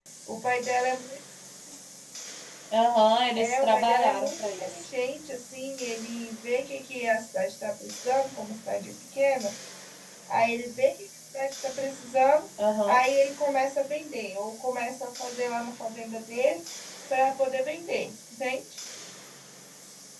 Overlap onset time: 3.4 s

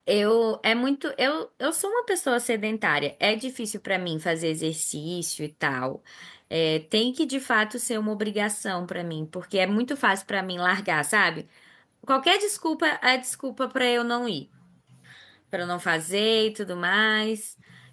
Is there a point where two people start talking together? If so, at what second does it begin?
none

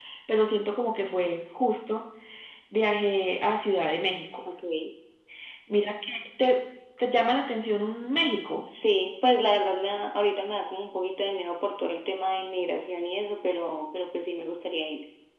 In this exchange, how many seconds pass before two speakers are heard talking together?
none

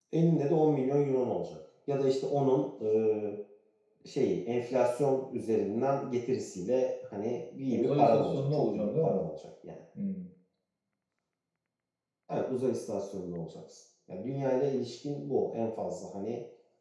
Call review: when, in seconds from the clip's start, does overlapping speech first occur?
7.7 s

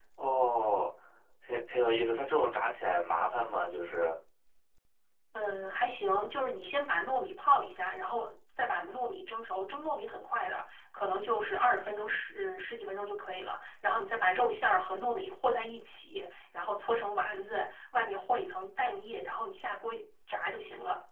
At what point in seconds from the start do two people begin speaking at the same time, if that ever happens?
none

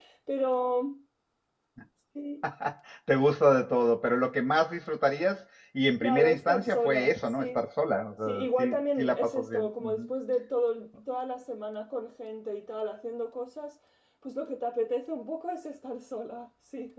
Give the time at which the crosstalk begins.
6.0 s

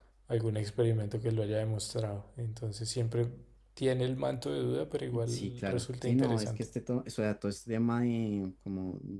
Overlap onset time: 5.1 s

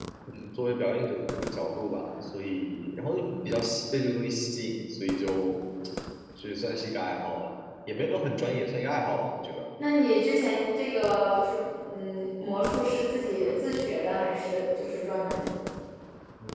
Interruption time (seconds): none

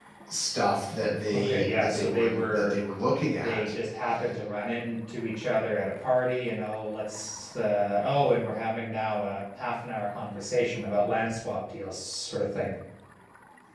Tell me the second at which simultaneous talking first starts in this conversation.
1.3 s

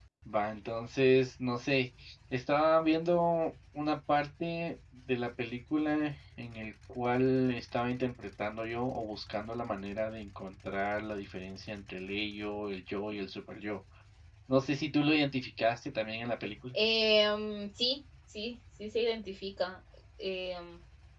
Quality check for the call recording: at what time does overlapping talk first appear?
none

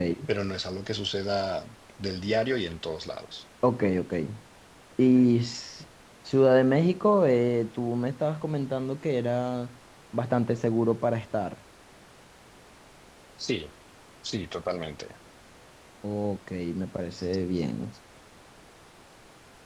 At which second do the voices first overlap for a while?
none

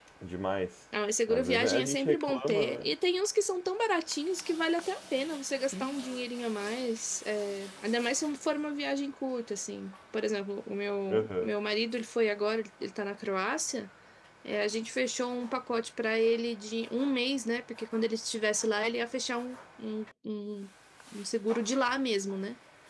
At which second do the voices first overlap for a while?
1.3 s

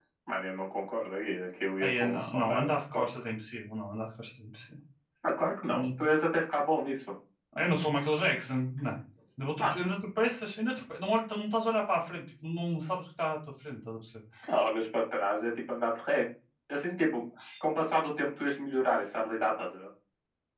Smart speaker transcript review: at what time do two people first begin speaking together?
1.8 s

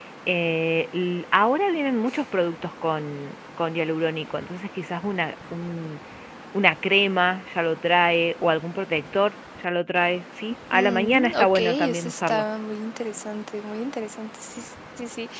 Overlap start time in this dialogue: 10.7 s

